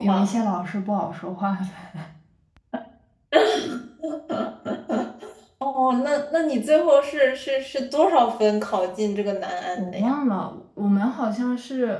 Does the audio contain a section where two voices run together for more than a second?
No

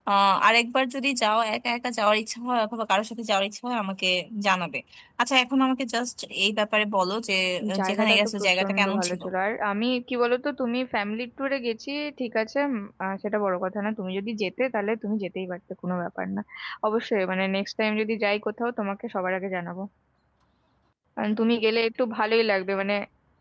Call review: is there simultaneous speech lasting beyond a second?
Yes, from 7.8 s

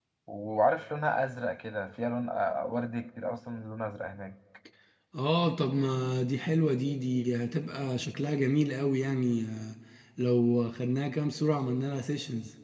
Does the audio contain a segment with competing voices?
No

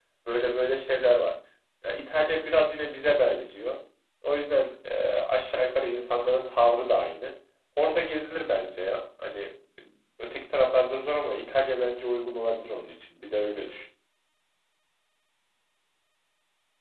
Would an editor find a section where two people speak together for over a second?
No

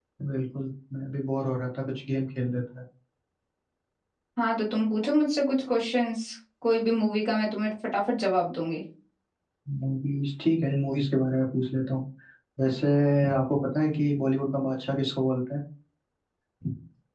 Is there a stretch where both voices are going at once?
No

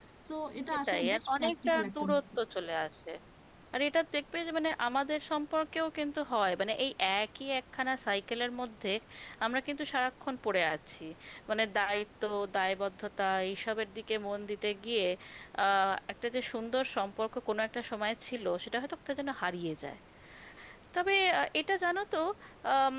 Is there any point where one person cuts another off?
Yes, from 0.9 s

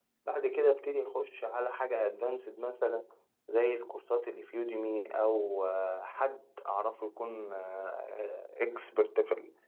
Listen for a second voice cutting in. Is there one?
No

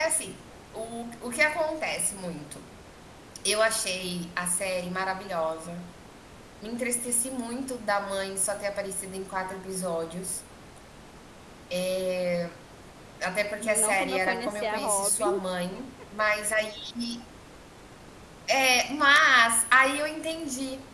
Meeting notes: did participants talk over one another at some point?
Yes, from 13.5 s

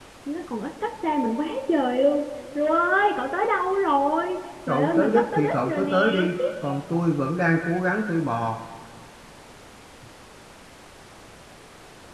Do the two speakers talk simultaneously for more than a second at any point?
Yes, from 4.7 s

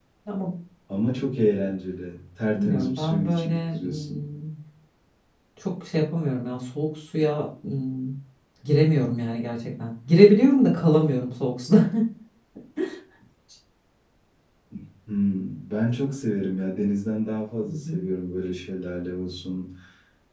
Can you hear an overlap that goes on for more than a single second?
Yes, from 2.5 s

